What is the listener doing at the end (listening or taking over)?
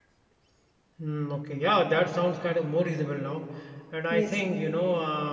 listening